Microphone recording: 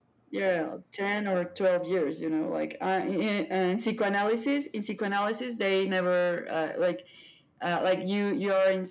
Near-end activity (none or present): none